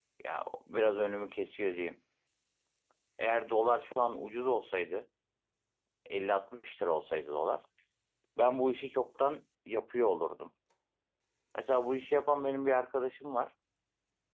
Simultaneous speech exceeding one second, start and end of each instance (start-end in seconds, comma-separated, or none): none